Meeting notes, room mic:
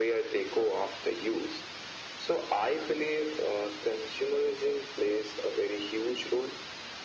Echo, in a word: present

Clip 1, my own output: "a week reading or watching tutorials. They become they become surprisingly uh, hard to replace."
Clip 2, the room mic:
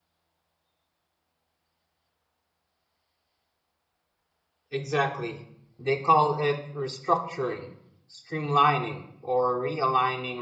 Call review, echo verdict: none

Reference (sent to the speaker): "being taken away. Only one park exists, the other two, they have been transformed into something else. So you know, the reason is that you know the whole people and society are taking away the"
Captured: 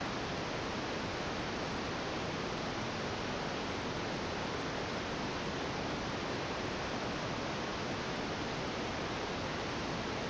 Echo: none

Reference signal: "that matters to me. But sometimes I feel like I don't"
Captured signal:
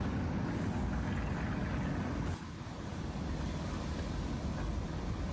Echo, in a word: none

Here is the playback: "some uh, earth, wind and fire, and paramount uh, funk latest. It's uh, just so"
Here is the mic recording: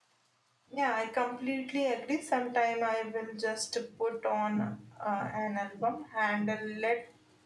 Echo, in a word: none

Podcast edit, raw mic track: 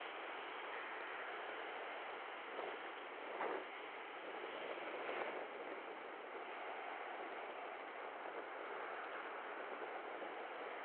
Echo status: none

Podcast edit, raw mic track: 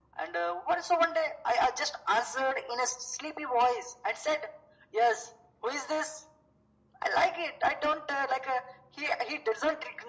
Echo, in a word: present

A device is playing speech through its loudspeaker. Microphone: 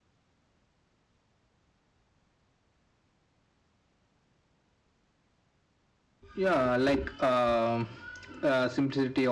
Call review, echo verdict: none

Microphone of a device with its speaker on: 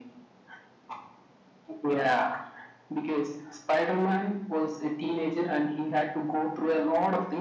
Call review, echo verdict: present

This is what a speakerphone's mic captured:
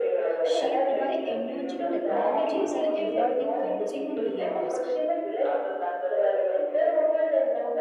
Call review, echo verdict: present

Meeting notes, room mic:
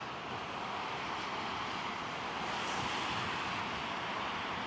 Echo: none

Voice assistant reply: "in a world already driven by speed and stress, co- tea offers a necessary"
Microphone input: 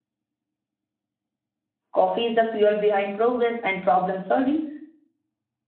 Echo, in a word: none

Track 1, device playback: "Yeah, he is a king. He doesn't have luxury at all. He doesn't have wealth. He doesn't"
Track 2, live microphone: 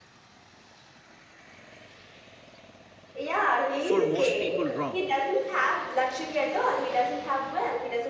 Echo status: present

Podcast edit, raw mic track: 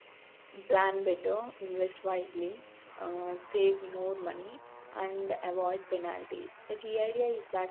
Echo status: none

